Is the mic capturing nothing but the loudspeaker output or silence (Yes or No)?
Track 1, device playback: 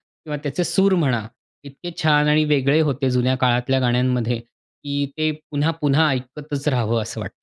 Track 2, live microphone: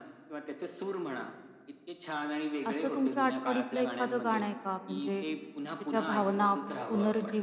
No